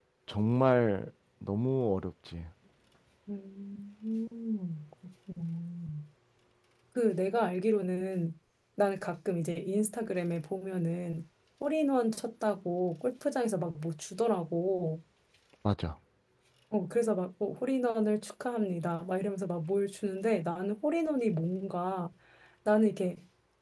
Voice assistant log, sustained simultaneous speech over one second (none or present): none